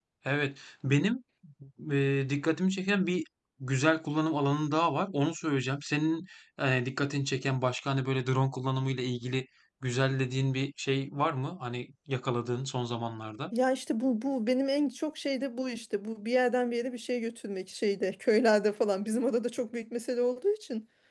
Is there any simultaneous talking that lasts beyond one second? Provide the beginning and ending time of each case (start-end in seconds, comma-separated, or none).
none